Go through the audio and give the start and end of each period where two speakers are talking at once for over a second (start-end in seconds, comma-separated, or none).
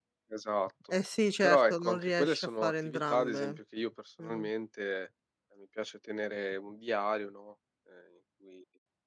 1.4-3.6